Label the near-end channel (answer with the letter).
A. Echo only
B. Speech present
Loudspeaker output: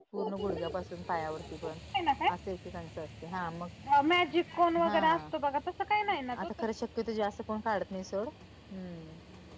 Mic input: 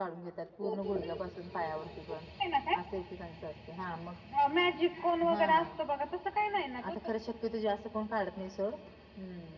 A